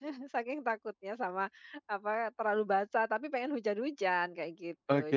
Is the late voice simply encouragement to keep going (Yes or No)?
No